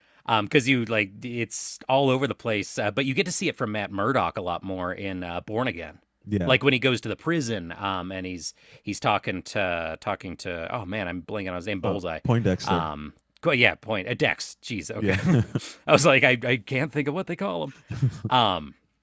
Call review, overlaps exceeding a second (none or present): none